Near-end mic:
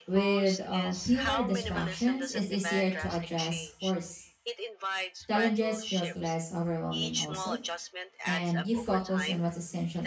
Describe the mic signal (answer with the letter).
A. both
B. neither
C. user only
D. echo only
A